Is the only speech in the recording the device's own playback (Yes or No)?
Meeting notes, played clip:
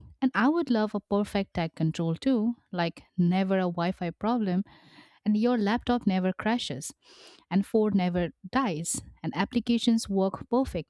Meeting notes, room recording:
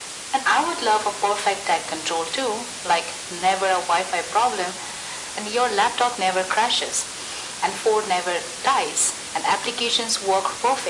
Yes